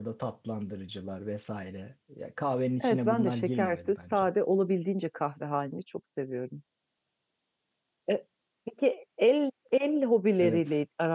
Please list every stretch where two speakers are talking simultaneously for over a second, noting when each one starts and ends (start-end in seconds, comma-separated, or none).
2.8-4.3